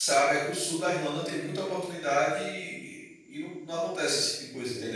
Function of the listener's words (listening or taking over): taking over